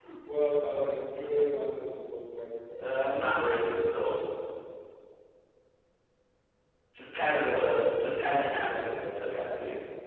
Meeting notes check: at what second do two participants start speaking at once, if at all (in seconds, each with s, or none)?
7.2 s